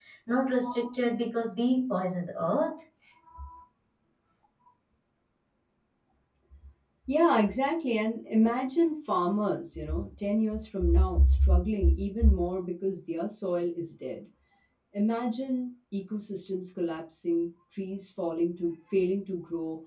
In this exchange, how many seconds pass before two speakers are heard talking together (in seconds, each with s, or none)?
none